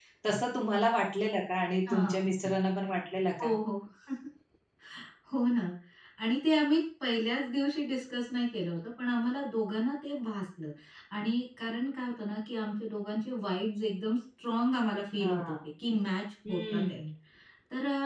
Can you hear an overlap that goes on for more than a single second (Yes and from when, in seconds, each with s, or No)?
No